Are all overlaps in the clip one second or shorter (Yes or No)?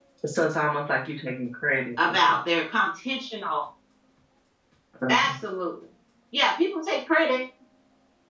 Yes